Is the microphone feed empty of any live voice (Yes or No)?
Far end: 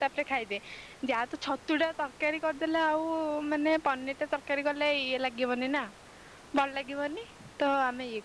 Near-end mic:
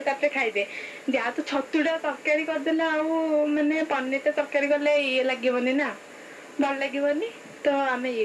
Yes